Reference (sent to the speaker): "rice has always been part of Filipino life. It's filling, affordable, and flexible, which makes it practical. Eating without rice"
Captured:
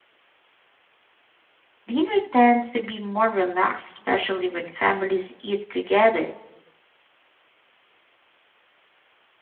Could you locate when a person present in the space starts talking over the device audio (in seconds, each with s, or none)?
1.9 s